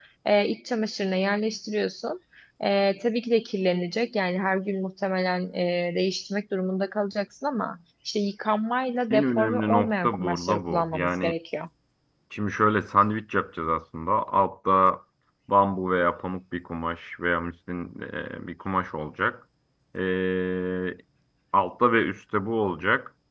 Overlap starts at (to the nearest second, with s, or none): 9 s